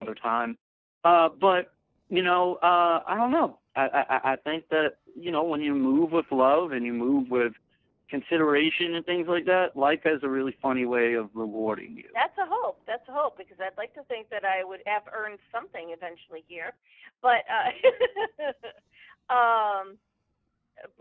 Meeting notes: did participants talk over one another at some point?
No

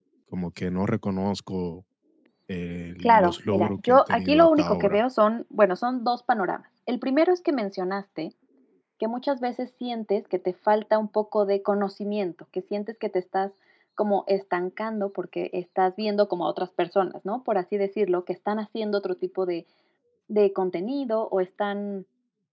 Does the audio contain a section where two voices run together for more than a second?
Yes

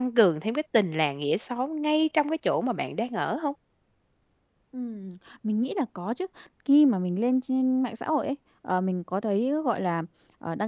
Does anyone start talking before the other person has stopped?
No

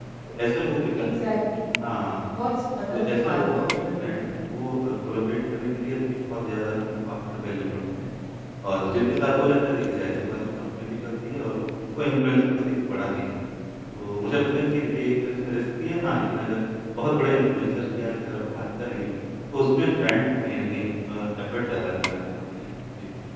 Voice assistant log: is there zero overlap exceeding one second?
No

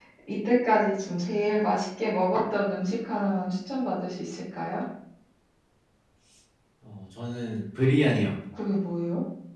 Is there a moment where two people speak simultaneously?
No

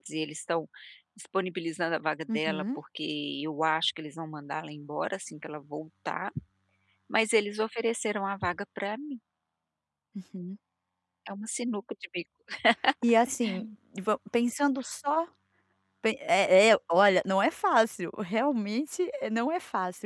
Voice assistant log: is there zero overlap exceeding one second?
Yes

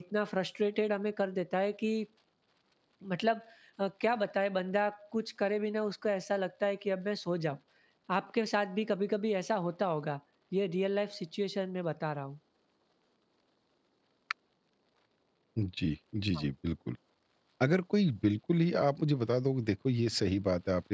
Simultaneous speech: No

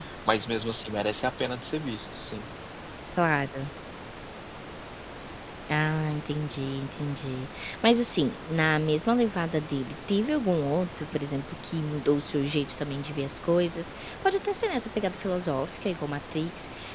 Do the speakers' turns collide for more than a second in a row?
No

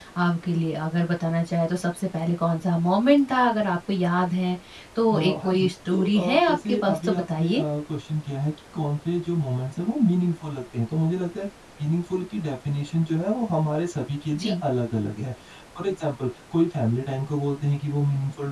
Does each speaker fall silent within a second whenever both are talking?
No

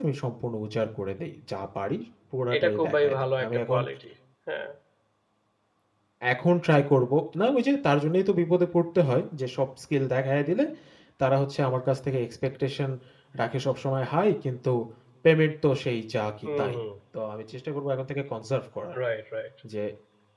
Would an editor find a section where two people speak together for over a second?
Yes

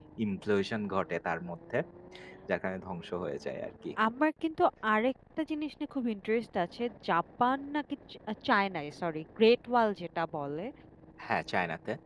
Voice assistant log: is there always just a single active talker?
Yes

